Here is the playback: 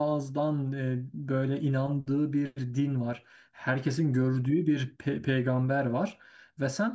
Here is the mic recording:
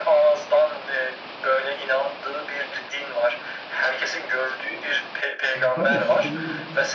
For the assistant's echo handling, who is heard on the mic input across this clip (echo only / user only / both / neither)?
both